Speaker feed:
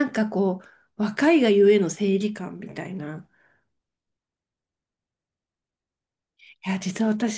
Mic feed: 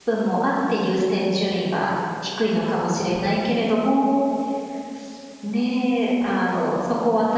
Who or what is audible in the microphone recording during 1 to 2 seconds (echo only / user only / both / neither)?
user only